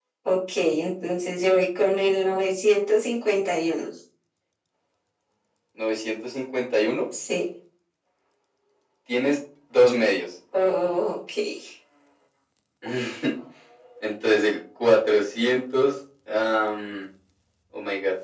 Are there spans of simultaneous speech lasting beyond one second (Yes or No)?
No